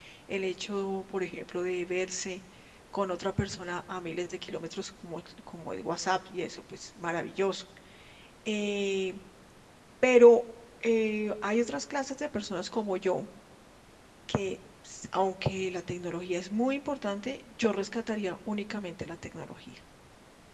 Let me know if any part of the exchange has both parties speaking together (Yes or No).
No